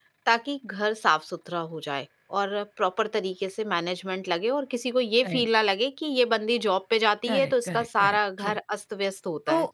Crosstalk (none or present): present